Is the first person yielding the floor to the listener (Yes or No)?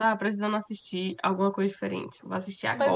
Yes